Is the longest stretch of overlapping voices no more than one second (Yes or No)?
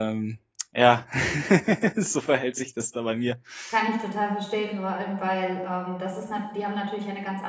Yes